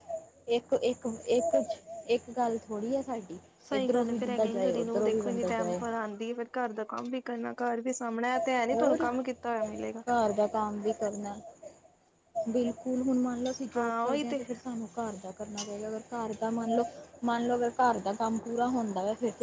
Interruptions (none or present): present